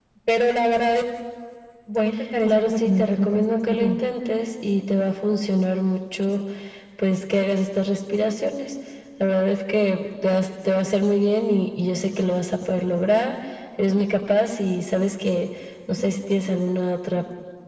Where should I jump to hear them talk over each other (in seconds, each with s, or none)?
2.4 s